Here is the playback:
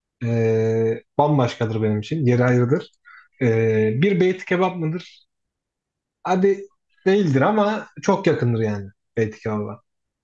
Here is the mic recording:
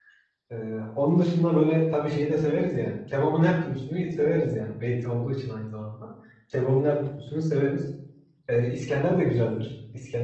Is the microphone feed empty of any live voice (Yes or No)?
No